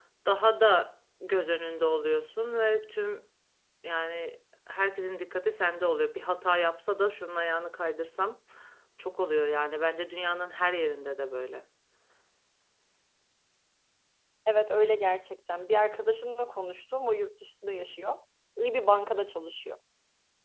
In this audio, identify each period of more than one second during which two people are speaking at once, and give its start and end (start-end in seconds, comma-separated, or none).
none